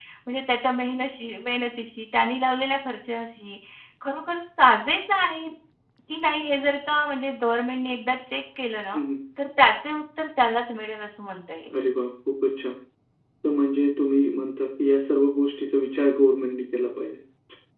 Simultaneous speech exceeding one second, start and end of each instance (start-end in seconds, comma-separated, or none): none